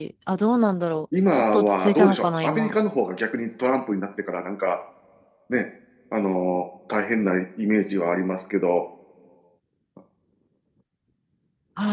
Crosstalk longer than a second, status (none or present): present